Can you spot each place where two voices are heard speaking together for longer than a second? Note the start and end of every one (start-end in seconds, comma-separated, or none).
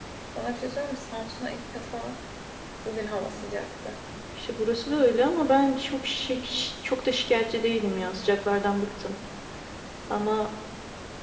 none